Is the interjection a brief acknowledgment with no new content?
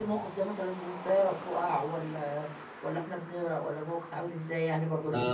No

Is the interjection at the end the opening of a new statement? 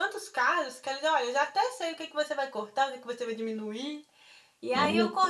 No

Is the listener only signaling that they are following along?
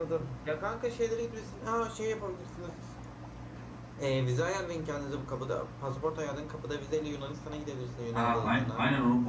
No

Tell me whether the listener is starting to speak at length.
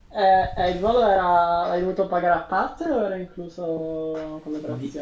Yes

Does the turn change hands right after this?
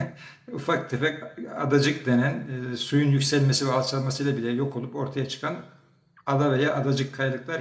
No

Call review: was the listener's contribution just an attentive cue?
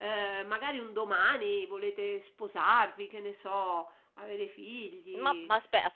No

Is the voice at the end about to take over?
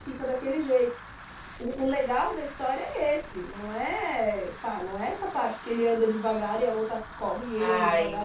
Yes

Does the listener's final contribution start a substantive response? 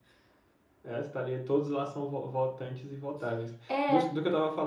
No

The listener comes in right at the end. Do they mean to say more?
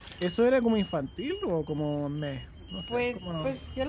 Yes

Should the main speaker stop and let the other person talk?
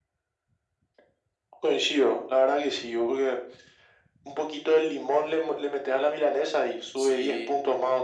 Yes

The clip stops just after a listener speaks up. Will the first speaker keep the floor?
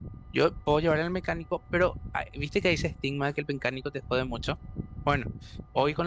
Yes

